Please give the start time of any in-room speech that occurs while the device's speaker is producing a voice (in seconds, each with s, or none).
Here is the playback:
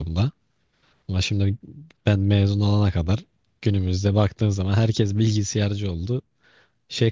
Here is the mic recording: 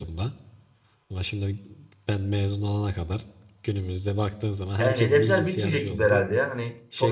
4.8 s